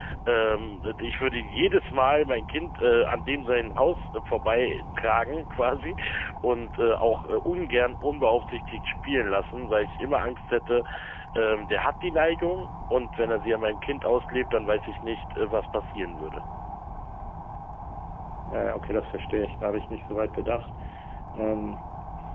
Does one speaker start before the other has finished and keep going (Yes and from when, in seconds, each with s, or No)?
No